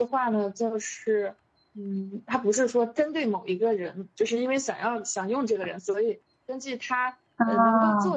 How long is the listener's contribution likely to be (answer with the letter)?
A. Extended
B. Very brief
B